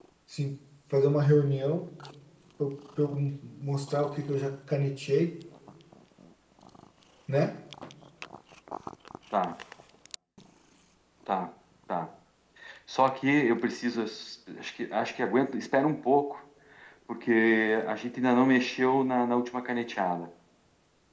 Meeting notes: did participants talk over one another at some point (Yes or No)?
No